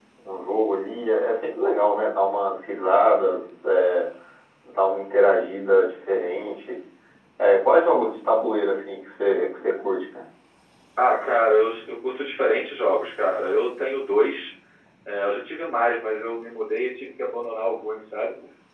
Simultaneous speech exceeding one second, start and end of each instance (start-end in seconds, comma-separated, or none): none